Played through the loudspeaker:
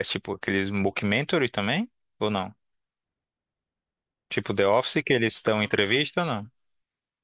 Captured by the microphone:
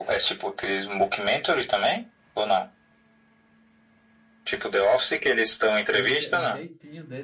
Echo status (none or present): present